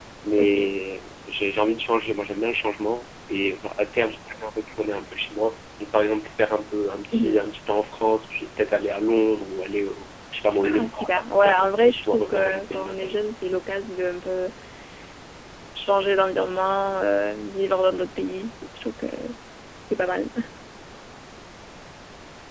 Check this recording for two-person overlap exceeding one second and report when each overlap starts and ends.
11.5-13.2

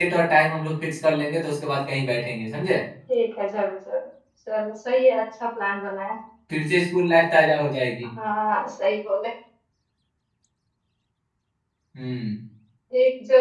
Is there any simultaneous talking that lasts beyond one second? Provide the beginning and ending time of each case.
none

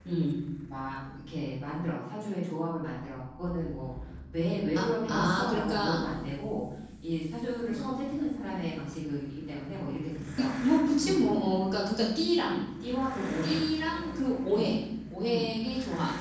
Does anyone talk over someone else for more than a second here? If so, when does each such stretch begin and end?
4.8-6.0

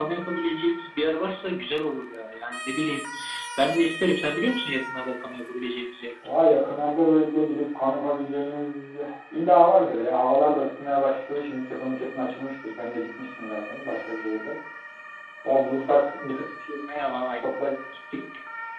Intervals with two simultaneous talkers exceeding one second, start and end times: none

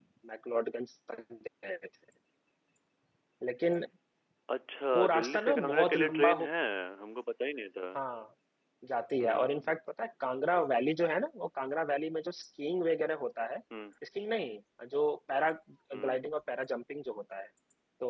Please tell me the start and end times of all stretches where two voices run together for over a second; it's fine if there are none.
5.0-6.5

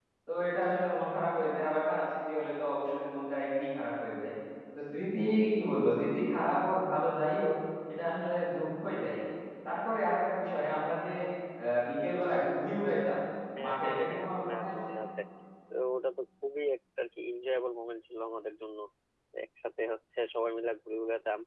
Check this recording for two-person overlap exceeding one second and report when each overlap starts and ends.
13.6-14.9

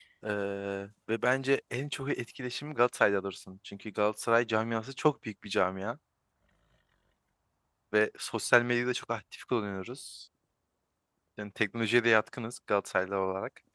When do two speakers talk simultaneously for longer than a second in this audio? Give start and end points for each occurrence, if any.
none

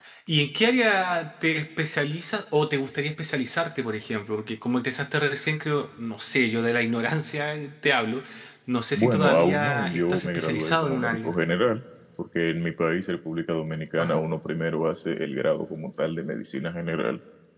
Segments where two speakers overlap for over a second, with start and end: 8.9-11.3

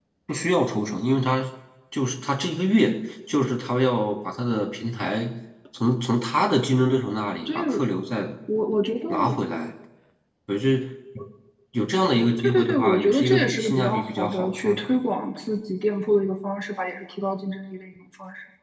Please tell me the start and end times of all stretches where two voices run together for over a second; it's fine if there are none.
12.4-14.9

